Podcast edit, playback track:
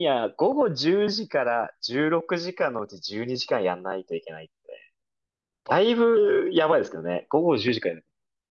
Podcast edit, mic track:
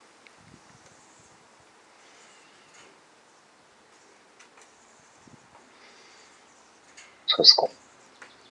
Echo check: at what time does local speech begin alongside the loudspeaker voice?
7.3 s

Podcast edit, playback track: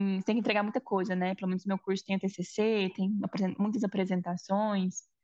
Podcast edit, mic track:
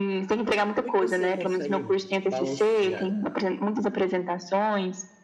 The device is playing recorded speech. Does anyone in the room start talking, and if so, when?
0.7 s

